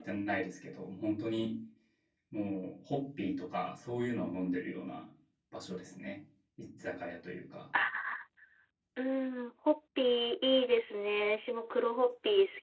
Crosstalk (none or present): none